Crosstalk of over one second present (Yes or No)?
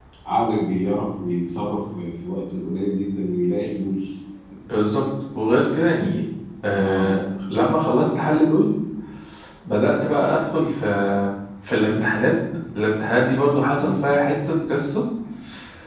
No